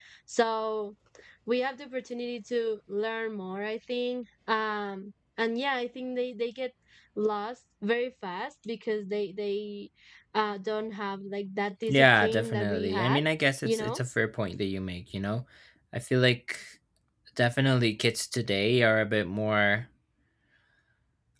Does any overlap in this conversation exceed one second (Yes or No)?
Yes